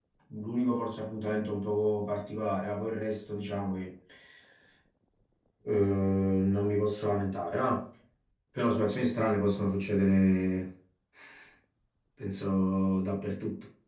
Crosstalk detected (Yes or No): No